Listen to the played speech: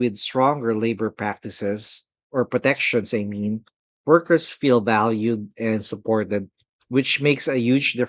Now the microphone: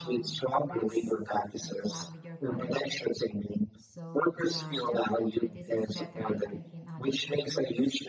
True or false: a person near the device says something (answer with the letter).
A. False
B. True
B